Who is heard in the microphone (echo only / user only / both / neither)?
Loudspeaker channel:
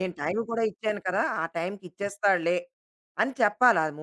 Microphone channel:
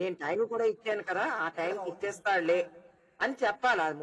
both